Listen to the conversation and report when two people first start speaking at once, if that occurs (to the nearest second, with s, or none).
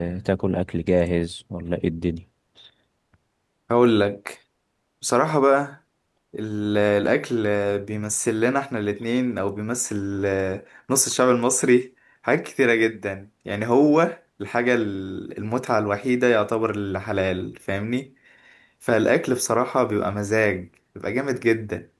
none